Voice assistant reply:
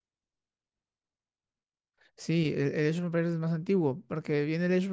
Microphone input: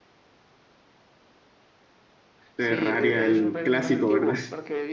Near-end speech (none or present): present